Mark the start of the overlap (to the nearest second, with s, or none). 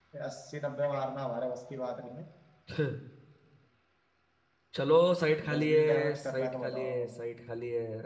5 s